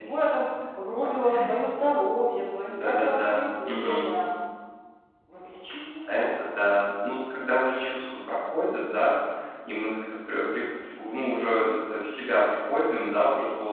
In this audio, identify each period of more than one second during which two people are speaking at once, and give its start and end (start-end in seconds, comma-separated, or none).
2.8-4.1